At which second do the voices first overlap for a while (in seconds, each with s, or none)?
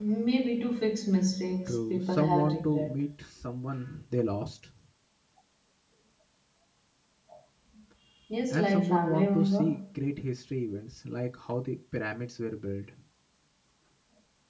1.7 s